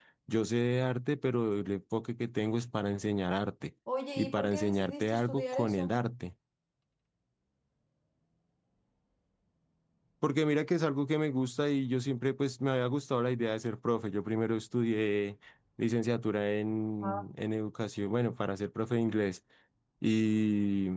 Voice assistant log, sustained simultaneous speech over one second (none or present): present